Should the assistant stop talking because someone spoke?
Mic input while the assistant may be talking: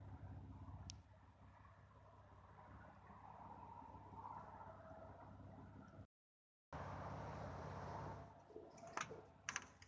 No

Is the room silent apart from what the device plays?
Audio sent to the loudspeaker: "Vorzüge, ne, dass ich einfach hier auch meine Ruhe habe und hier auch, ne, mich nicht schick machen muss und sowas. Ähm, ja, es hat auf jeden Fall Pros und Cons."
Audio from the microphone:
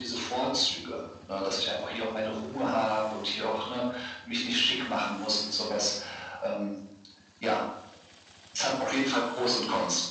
Yes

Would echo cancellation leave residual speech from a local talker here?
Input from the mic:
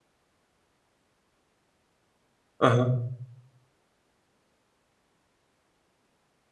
Yes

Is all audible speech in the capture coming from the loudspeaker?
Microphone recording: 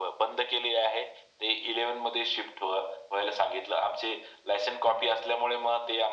Yes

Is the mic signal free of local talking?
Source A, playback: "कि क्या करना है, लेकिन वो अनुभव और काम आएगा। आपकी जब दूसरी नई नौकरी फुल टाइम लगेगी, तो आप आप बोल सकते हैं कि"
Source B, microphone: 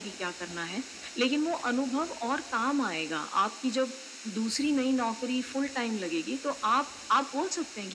Yes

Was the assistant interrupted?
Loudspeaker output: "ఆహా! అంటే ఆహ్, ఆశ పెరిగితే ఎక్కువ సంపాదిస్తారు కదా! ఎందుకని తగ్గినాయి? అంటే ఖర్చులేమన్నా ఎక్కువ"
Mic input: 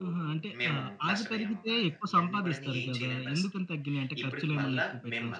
Yes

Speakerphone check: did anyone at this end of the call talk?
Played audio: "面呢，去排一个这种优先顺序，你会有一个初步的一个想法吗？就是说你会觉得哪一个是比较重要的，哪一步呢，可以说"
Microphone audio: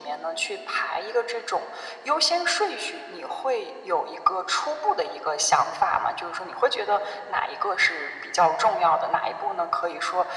No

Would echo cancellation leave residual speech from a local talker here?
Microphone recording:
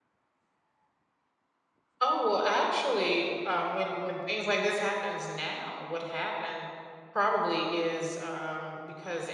Yes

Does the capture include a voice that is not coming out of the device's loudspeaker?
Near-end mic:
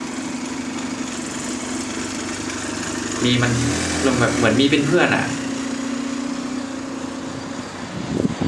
Yes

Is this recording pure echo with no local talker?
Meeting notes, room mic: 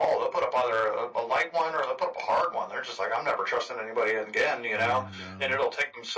No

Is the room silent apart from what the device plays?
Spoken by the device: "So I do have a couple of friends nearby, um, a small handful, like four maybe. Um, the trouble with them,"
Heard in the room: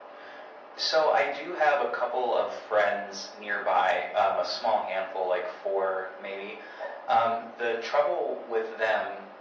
Yes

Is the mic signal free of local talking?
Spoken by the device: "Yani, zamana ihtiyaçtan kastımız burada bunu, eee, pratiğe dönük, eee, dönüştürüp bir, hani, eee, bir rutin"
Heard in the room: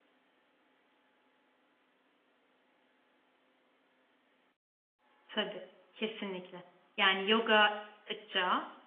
No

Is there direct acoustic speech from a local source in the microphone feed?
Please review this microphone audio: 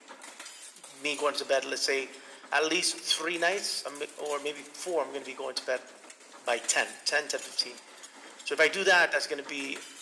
No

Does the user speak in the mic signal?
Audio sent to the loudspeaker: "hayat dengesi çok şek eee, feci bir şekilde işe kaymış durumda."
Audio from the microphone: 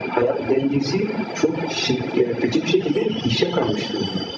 No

